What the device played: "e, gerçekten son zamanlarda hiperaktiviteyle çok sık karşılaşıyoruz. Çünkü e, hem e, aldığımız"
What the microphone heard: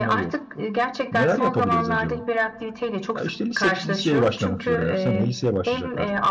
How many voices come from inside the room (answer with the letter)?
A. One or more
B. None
A